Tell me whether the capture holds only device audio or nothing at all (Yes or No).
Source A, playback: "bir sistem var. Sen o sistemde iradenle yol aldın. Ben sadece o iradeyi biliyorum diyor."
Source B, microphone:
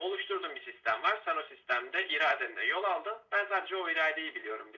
Yes